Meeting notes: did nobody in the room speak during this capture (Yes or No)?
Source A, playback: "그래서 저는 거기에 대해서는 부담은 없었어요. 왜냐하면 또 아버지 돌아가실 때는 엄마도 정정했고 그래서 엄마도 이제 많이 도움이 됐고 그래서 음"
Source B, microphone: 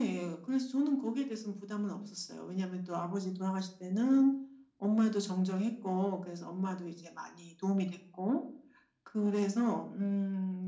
Yes